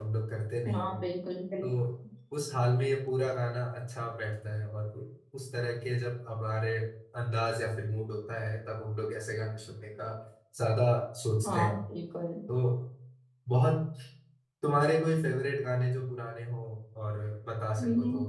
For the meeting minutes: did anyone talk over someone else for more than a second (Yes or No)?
No